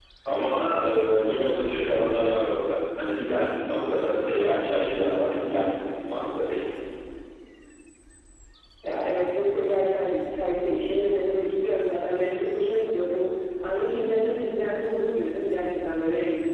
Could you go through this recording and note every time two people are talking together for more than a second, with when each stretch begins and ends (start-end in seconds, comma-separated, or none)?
none